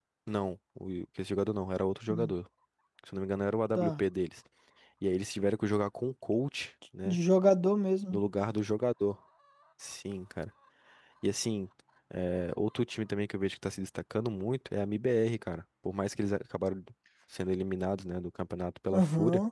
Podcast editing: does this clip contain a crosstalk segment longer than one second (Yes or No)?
No